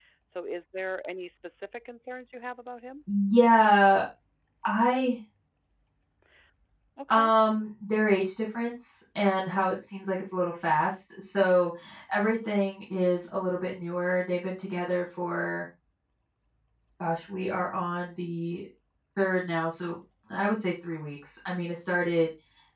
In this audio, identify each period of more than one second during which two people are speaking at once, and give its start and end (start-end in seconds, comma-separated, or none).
none